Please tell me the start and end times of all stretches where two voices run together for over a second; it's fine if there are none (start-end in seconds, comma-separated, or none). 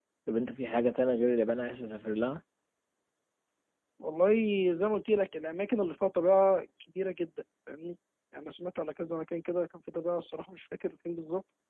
none